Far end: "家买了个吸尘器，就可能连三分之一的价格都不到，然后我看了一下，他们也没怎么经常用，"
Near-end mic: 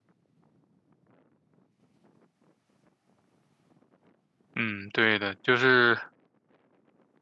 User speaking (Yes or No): Yes